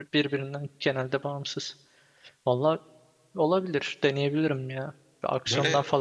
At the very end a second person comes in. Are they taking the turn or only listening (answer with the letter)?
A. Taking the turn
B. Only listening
B